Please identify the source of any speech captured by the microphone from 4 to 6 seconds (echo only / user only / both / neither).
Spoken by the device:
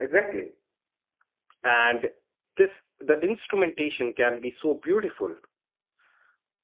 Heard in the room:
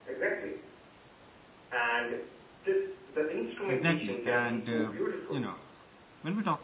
both